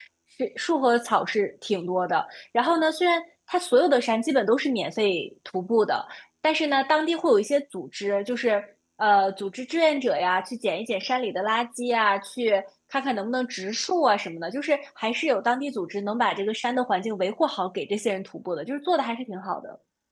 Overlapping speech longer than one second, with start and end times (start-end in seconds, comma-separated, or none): none